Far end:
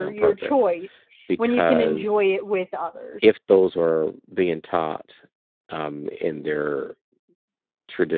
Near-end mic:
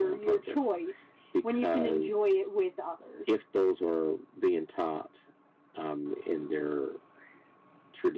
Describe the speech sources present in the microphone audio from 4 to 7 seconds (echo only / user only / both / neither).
echo only